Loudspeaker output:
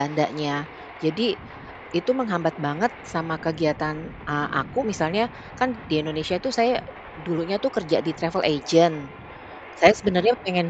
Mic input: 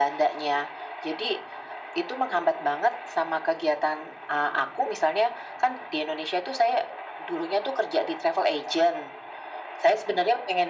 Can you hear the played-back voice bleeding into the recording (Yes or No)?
Yes